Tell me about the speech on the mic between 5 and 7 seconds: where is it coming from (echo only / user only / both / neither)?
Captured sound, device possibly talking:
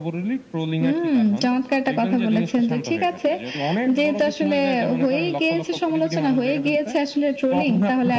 echo only